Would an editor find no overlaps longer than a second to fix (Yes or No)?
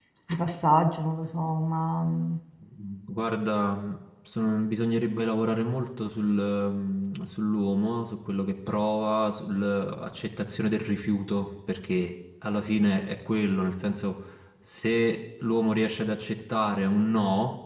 Yes